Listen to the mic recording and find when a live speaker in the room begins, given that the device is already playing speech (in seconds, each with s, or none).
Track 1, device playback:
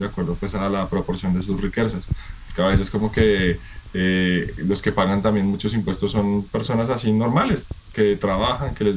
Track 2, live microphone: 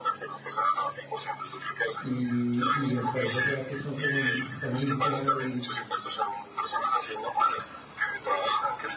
2.0 s